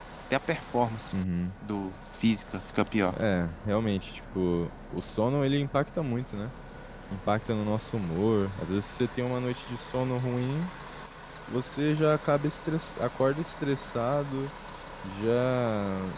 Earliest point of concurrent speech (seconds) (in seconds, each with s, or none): none